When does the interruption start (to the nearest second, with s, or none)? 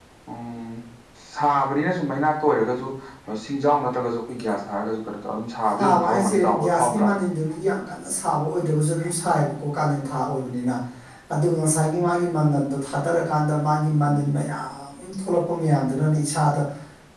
6 s